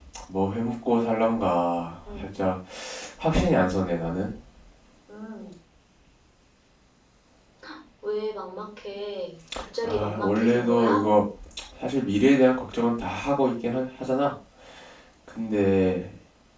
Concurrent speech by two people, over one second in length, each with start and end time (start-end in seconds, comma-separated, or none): 9.8-11.1